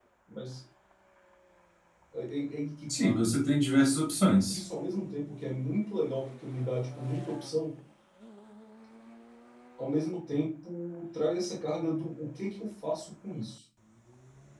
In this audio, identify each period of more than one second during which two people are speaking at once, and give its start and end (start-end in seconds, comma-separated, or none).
none